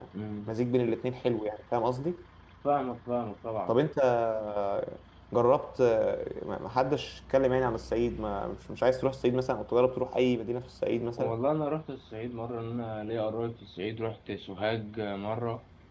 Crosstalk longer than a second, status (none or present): none